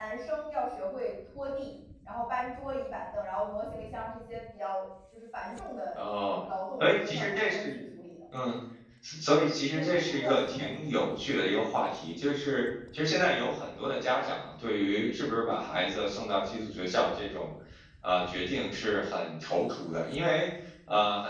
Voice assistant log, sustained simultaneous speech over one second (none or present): present